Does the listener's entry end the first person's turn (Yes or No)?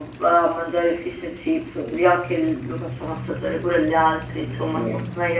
Yes